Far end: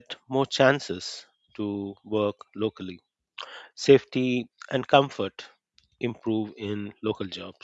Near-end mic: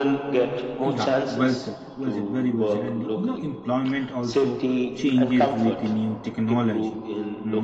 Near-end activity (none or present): present